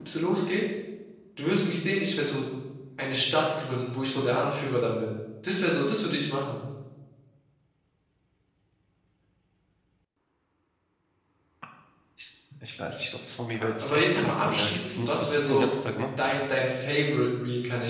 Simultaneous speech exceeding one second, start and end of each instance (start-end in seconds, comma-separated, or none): 13.6-15.7